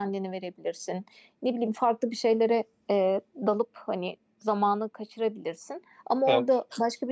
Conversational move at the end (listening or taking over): listening